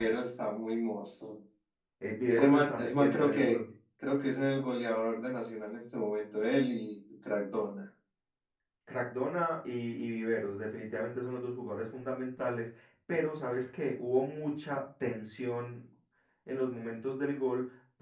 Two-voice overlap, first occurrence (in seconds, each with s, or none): 2.2 s